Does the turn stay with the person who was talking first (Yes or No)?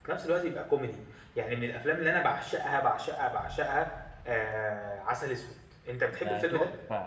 No